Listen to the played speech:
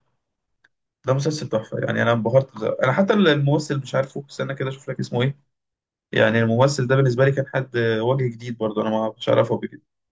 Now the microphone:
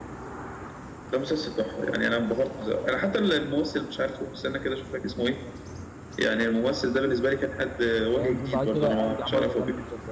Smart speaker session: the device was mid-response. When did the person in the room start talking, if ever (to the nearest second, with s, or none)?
8 s